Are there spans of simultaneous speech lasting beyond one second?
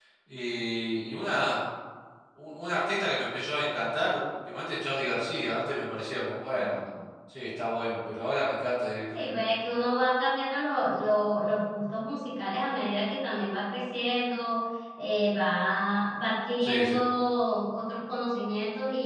No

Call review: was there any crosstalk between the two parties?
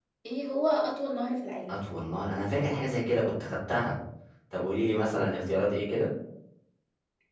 No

